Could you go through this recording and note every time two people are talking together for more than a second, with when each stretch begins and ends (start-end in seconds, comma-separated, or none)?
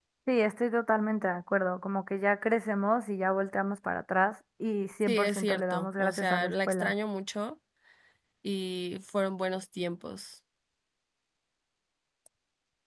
5.0-6.9